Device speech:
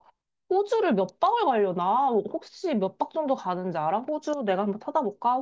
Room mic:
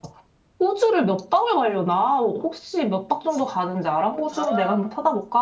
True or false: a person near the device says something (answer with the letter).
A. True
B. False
A